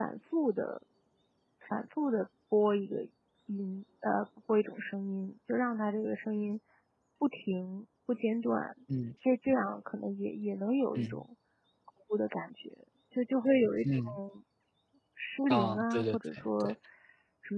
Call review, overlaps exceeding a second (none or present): present